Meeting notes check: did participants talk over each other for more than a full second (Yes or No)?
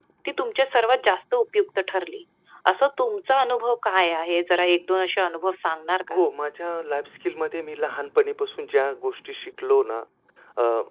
No